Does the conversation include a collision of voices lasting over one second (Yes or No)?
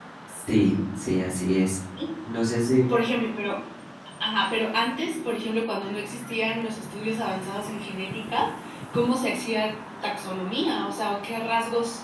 No